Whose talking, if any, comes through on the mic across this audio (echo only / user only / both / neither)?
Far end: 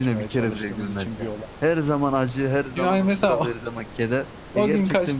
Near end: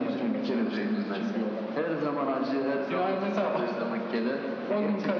echo only